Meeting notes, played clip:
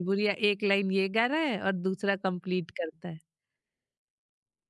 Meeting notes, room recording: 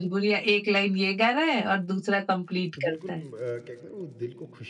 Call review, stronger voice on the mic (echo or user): echo